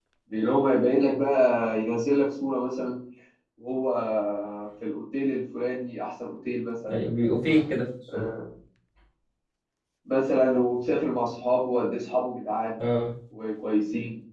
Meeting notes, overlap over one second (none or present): none